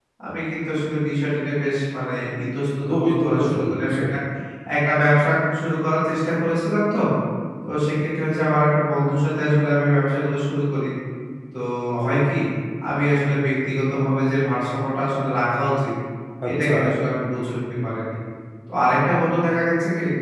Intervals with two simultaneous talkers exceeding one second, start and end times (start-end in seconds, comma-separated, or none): 2.9-4.1